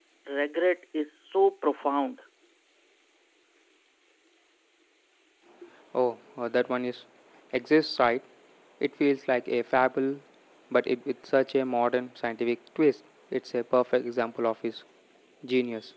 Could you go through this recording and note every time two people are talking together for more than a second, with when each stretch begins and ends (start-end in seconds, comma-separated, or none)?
none